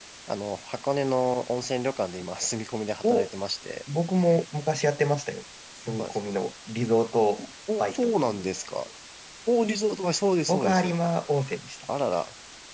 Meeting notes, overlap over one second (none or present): none